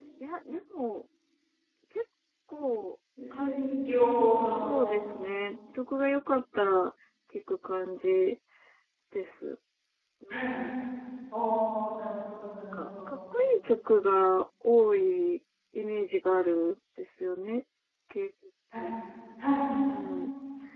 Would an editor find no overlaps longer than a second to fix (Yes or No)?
Yes